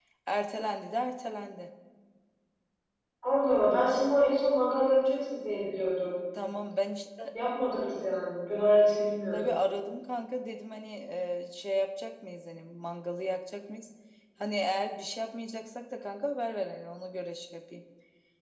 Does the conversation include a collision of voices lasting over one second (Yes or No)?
No